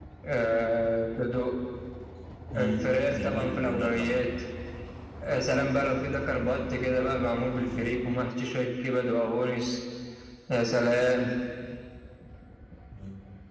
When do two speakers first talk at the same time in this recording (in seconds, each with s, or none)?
2.6 s